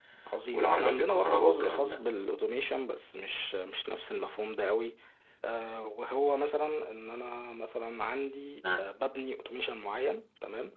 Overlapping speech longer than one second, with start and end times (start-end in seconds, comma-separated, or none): 0.5-2.0